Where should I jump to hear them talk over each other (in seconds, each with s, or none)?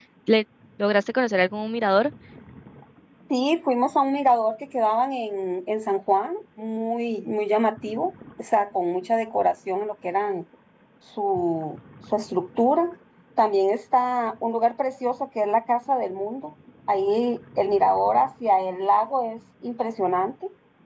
none